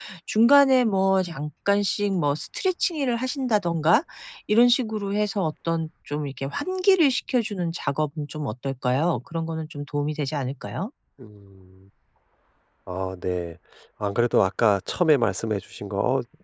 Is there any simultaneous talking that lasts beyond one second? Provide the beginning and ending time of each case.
none

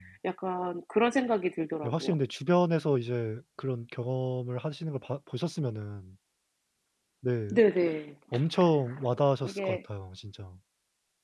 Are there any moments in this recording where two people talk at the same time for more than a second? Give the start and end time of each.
none

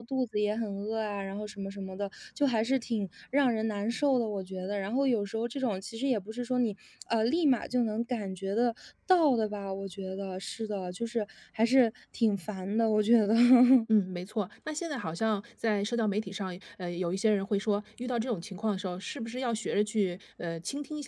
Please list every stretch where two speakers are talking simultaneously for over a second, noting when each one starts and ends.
none

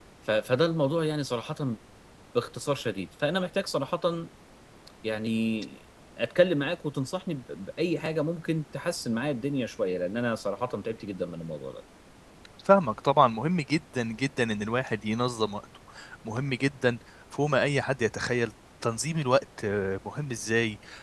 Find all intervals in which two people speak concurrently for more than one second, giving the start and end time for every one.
none

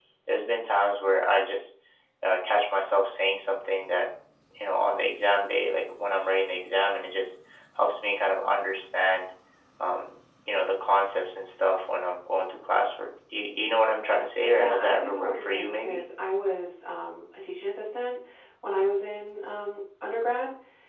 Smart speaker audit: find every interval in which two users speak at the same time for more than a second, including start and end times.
14.5-16.0

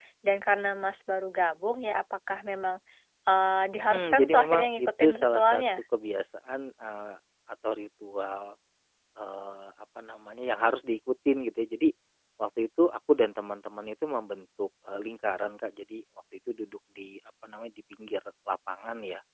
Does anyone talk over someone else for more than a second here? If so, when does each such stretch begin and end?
3.8-5.6

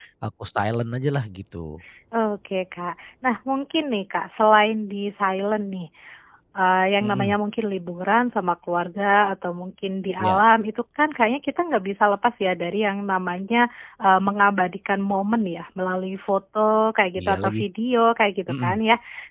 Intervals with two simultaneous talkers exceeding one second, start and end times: none

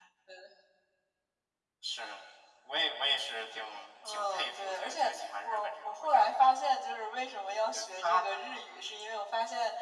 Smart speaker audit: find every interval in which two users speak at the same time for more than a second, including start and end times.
4.0-6.3

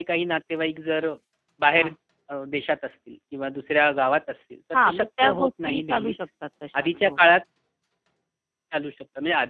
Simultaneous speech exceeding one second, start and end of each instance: 4.7-6.3

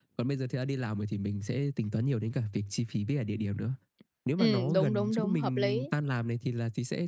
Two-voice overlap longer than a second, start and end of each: 4.4-5.9

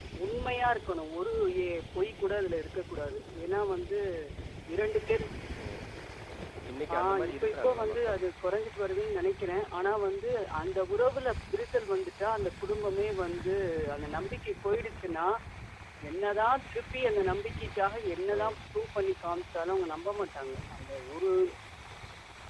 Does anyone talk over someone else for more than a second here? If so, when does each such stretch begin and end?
6.9-8.2

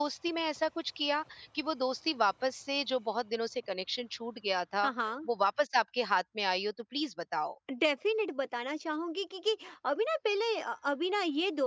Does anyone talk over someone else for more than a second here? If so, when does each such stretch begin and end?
none

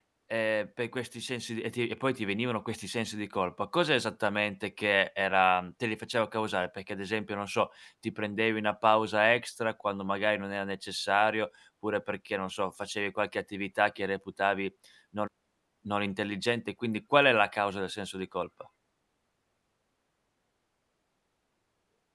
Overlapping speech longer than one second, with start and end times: none

